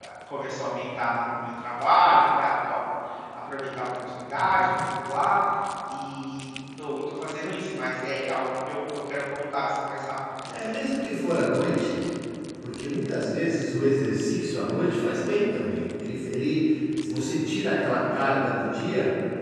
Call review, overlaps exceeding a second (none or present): none